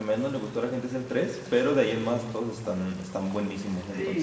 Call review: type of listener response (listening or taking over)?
taking over